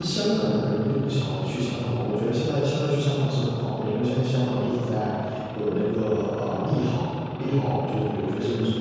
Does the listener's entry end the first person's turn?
Yes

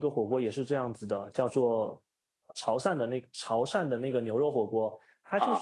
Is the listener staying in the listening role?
No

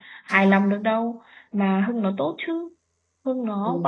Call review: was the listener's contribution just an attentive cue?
No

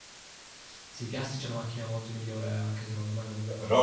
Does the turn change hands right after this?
No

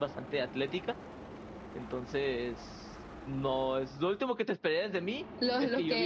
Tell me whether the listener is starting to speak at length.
Yes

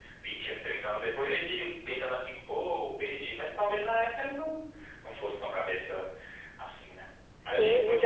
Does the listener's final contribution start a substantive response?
Yes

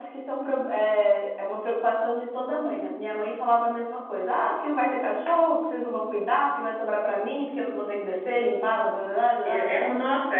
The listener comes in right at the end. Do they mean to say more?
Yes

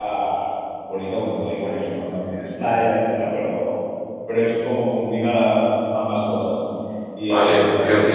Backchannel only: No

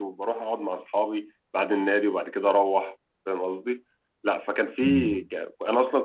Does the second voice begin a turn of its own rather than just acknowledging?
No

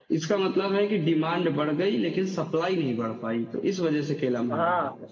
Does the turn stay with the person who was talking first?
No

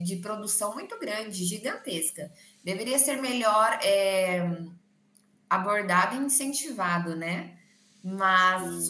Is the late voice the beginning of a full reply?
No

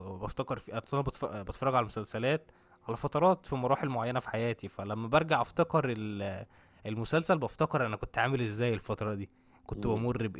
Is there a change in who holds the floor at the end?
No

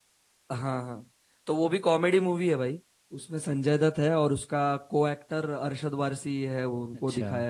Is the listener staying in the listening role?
No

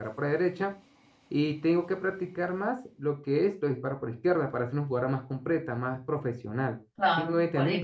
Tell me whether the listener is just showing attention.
No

